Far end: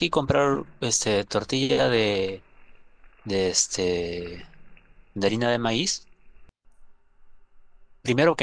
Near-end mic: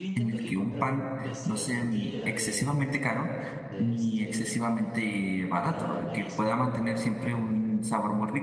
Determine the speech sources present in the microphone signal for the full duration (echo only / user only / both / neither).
both